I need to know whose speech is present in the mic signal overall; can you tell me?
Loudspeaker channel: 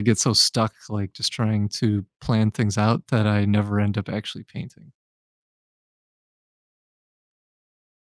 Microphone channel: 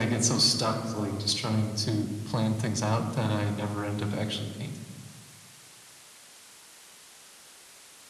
echo only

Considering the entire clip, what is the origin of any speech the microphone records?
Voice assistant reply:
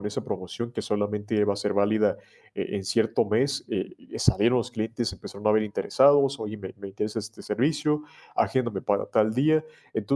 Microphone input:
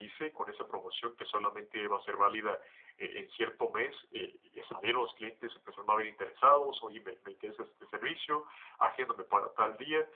echo only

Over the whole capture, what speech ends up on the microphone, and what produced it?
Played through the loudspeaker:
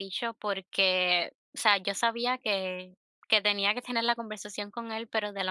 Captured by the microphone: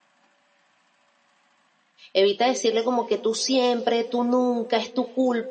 user only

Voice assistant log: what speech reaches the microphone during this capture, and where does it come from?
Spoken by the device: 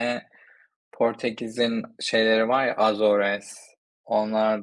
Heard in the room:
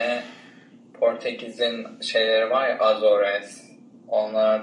echo only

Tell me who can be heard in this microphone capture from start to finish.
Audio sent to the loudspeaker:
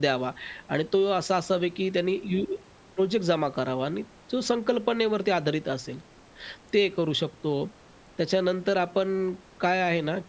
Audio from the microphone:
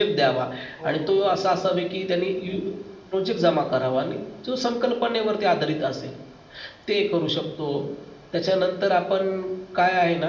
both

